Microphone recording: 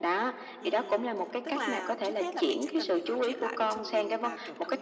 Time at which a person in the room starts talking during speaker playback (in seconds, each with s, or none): 0.6 s